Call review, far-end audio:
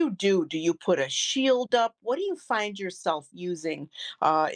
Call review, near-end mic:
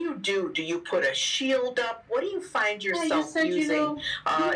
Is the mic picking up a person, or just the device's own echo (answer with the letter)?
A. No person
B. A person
B